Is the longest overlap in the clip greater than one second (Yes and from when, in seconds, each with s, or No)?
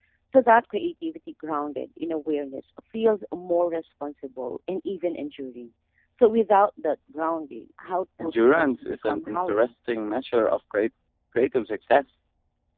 Yes, from 8.2 s